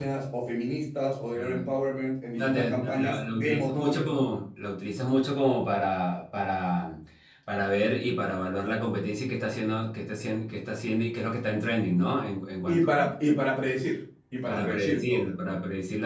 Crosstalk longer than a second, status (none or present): present